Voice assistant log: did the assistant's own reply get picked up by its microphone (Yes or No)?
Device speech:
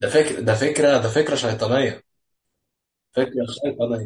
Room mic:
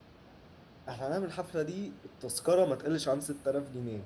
No